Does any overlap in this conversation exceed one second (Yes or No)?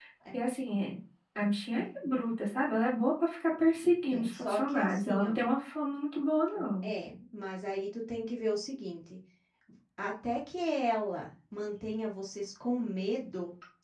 Yes